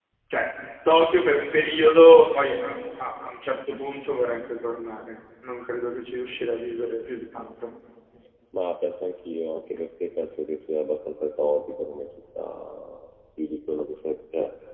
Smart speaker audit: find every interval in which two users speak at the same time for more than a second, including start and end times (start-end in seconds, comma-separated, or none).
none